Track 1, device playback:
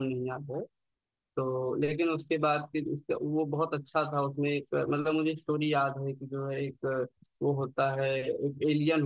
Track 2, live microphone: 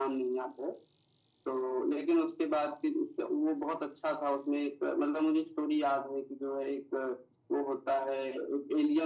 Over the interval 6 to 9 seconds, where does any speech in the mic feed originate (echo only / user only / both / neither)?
echo only